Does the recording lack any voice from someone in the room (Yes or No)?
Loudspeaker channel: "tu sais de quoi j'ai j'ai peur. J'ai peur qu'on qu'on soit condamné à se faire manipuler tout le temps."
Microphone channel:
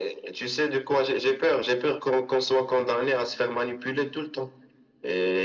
Yes